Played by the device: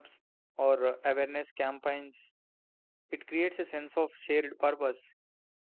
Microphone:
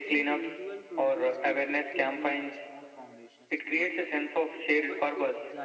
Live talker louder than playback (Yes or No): No